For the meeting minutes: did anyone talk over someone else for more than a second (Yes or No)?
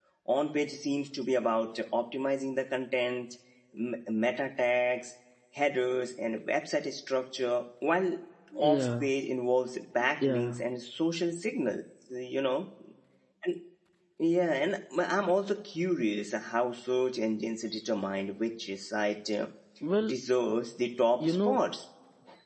No